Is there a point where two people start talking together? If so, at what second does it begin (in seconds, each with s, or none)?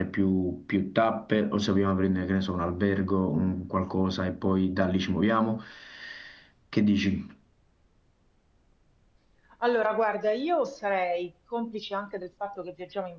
none